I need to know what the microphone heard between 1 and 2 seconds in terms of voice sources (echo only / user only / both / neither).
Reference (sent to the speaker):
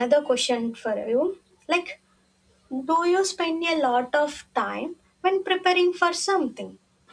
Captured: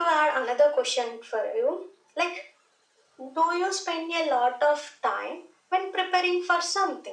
echo only